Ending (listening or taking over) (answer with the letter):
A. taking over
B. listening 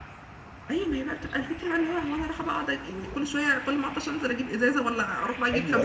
A